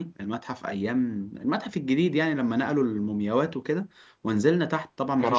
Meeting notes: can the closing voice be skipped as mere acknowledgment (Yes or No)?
Yes